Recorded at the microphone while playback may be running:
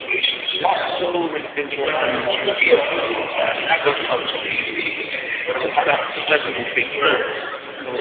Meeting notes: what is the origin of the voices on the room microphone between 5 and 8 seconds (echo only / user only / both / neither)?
both